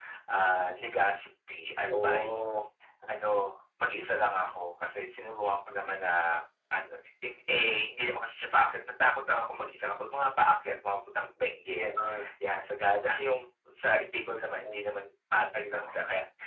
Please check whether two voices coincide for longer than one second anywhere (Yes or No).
No